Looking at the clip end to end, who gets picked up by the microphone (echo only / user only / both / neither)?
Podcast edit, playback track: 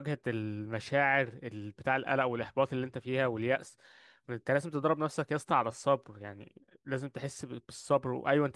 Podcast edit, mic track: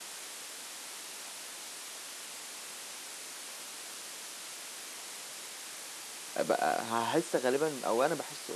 user only